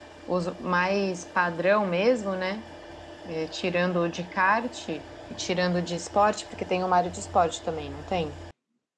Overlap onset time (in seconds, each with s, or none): none